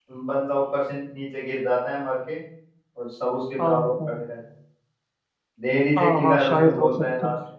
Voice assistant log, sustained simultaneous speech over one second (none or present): present